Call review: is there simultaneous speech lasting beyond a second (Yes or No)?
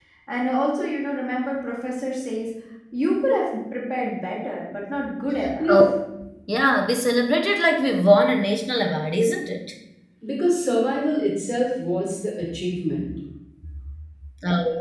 No